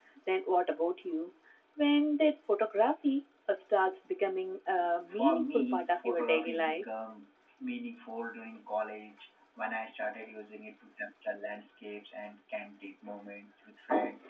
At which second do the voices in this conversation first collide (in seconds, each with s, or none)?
5.1 s